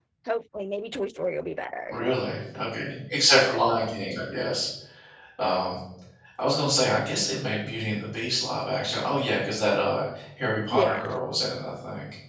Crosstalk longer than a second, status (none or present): none